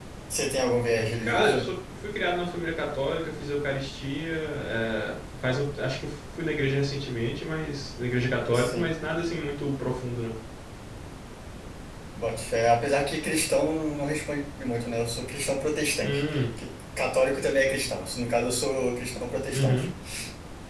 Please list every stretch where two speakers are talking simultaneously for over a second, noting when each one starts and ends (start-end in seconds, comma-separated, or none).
none